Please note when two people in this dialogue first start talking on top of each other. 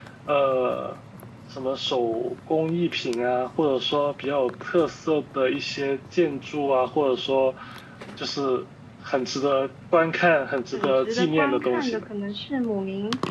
10.7 s

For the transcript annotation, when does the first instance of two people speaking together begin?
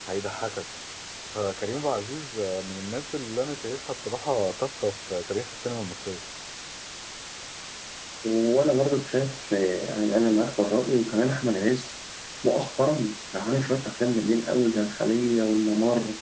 none

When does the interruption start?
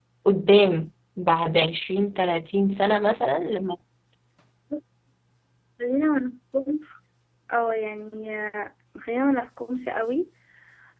none

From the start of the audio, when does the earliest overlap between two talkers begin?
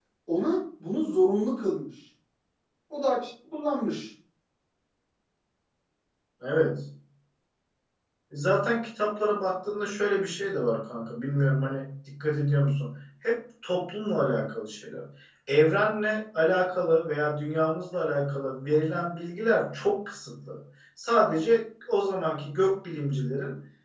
none

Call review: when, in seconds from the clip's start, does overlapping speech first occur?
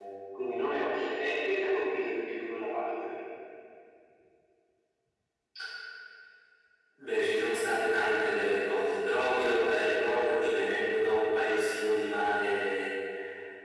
none

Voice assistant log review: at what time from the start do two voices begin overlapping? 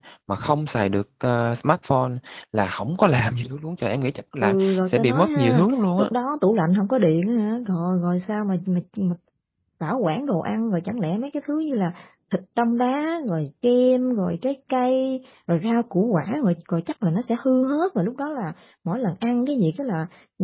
4.4 s

